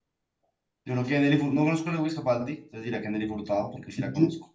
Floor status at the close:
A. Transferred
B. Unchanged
A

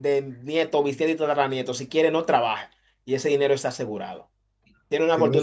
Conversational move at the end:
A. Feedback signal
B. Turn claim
A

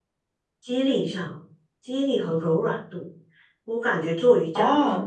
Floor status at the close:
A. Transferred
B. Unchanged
B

